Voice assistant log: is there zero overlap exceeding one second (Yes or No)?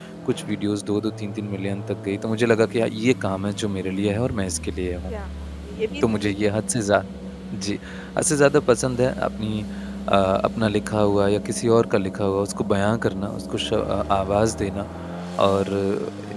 Yes